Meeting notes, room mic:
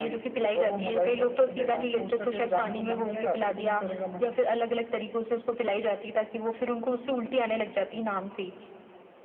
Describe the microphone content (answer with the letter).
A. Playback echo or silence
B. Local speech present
A